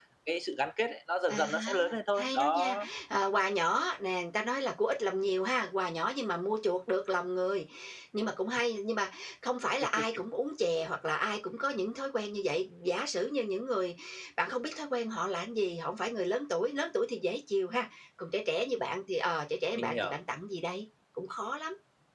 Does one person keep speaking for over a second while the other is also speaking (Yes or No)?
Yes